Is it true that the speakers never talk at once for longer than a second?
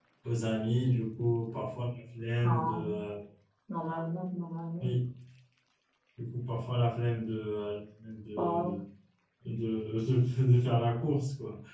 Yes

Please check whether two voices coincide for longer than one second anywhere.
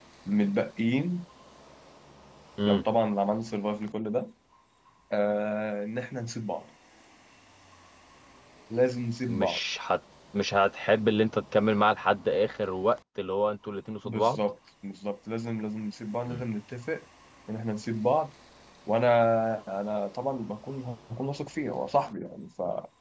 No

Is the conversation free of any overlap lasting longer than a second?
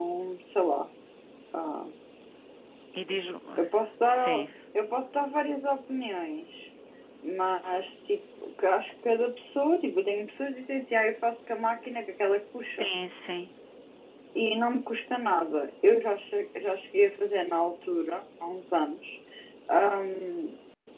Yes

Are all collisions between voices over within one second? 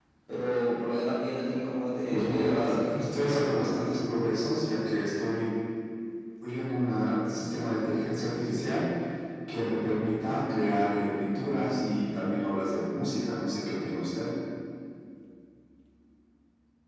No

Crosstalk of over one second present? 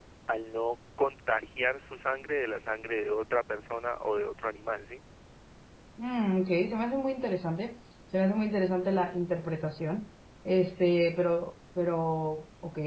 No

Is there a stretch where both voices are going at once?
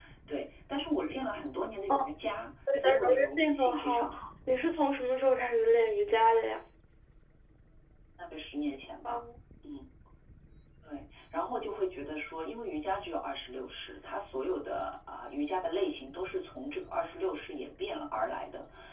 Yes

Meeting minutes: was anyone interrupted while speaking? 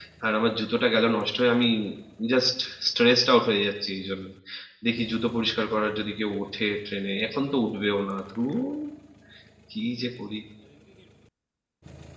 No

